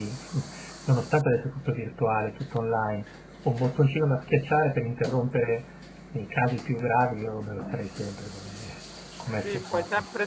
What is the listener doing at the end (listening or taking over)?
taking over